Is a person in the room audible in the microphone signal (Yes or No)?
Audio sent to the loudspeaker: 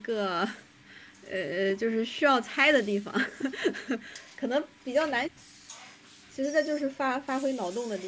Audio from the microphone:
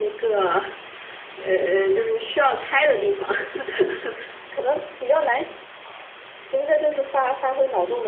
No